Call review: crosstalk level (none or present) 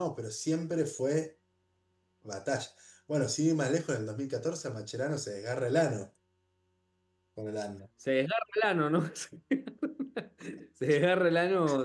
none